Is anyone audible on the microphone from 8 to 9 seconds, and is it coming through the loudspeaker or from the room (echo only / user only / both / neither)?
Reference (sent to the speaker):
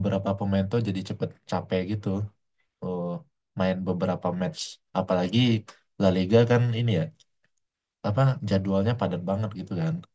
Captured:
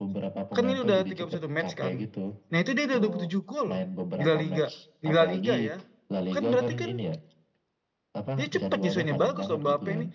both